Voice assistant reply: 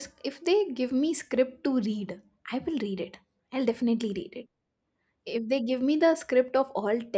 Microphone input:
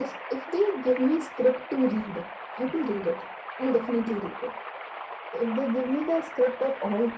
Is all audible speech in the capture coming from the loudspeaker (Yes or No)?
Yes